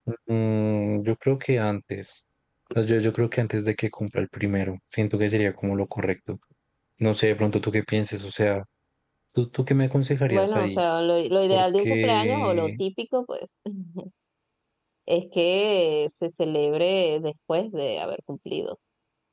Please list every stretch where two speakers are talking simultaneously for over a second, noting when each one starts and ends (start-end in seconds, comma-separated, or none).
11.5-12.8